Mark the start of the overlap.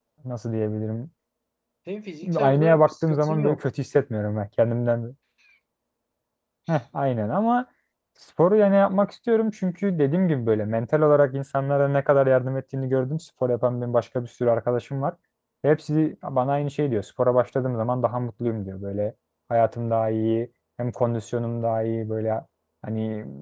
2.4 s

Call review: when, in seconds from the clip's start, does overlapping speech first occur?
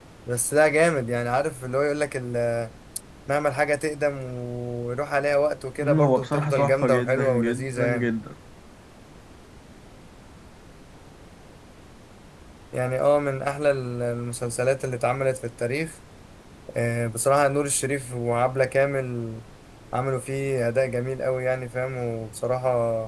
5.8 s

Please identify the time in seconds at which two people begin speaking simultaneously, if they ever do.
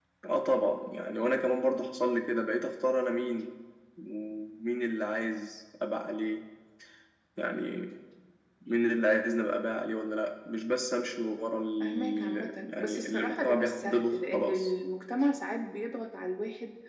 11.8 s

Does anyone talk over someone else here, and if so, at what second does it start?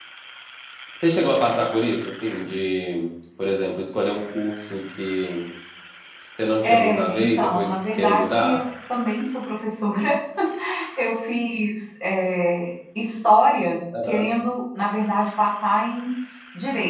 6.6 s

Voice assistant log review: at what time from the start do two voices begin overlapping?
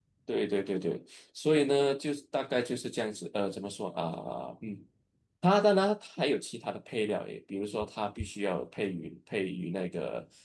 none

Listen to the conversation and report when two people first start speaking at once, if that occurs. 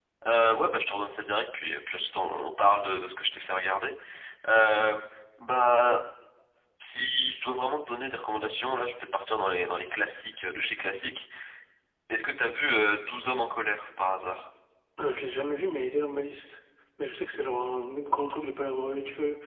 none

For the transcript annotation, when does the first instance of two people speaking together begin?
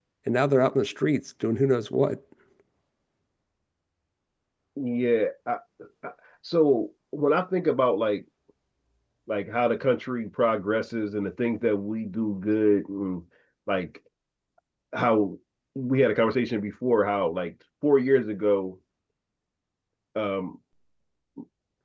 none

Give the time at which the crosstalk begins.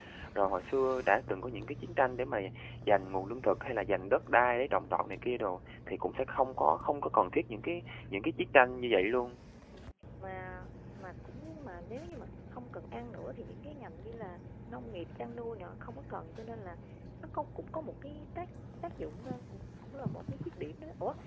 none

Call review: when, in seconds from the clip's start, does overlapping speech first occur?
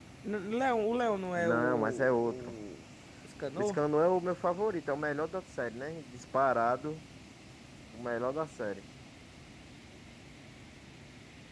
1.4 s

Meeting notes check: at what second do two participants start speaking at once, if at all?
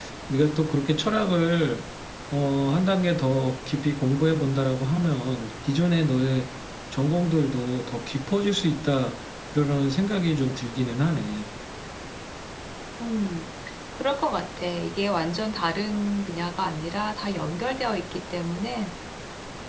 none

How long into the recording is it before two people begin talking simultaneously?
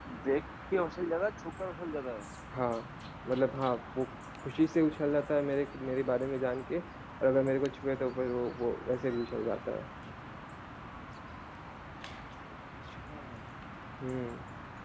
none

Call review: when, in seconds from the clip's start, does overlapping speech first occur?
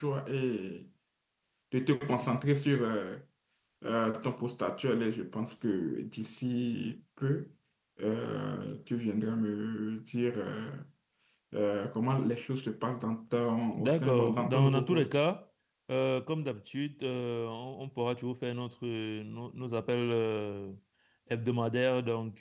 13.7 s

